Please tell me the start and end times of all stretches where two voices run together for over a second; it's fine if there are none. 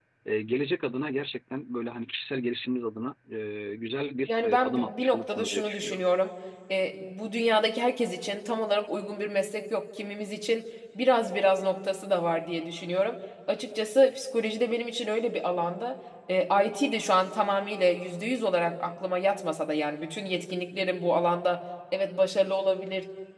4.3-6.0

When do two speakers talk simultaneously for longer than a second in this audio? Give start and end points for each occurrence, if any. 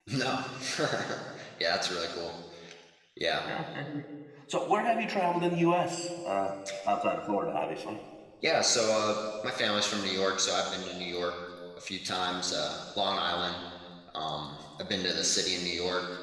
none

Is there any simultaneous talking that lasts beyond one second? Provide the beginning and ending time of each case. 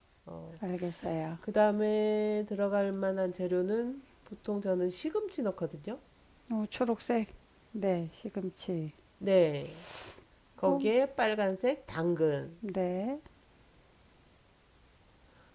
none

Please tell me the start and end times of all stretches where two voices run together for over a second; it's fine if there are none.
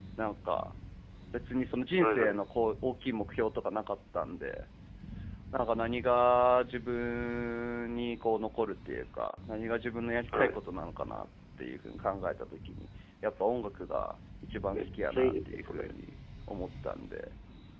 14.7-15.9

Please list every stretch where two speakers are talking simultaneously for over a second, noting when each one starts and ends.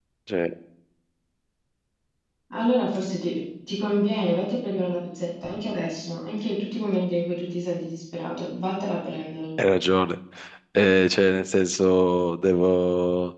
none

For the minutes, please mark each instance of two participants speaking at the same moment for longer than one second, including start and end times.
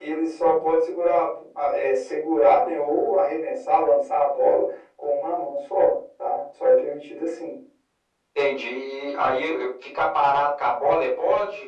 none

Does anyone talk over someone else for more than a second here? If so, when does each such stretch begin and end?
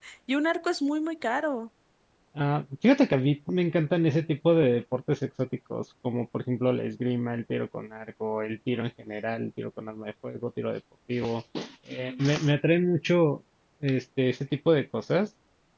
none

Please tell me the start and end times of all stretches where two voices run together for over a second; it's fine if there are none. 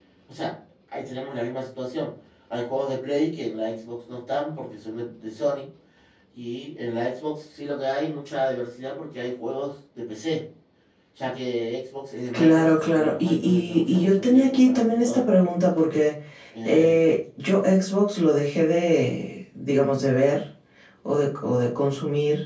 12.3-15.2

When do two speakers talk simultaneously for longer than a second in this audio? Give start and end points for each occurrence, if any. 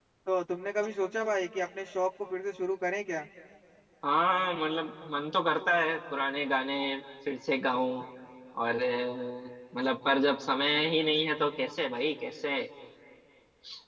none

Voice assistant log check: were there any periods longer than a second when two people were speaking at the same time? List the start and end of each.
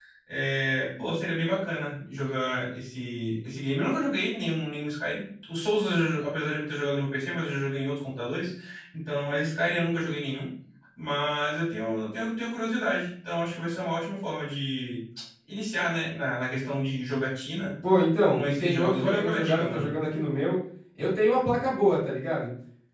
18.3-19.9

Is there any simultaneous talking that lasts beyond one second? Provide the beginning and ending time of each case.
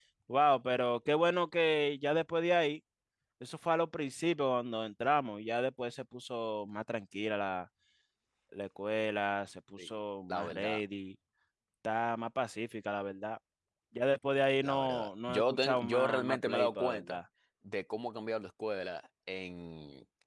14.6-17.2

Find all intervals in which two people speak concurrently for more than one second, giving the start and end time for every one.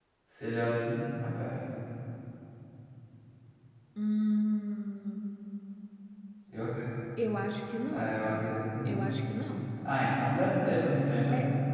none

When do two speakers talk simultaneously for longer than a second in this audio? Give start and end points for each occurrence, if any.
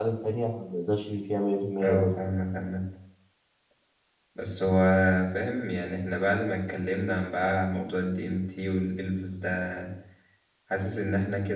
none

